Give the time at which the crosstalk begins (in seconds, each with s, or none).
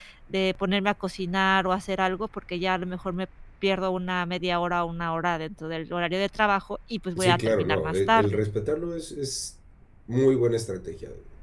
7.2 s